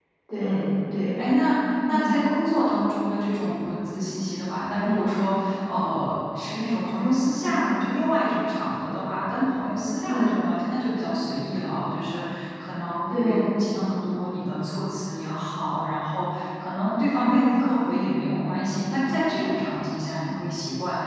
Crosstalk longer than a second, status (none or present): none